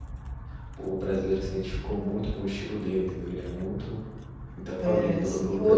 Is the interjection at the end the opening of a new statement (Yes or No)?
Yes